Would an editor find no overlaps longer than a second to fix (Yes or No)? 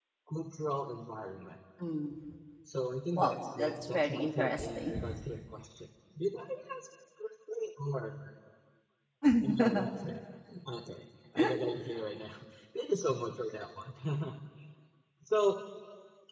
No